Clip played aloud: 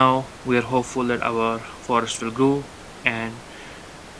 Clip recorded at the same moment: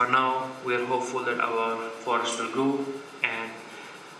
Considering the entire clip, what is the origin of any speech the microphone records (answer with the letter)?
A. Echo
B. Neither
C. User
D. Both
A